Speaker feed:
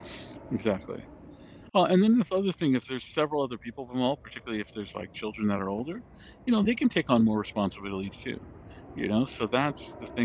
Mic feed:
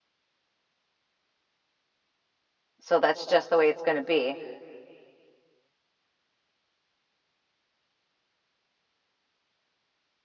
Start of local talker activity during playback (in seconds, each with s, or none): 2.8 s